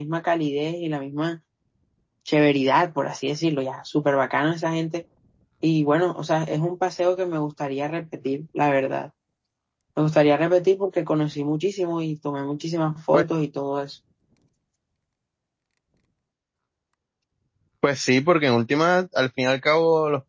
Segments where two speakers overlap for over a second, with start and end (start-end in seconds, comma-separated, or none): none